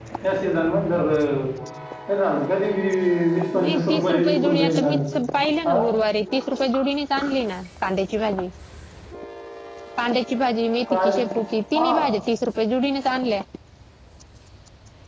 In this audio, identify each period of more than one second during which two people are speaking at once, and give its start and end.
3.6-4.8

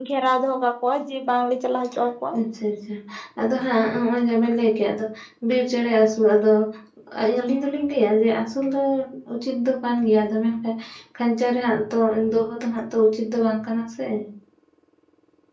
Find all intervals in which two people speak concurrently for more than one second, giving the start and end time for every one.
none

